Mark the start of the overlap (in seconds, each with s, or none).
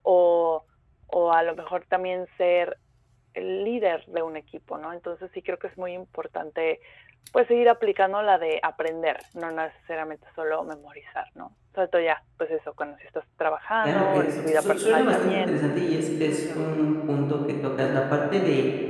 13.8 s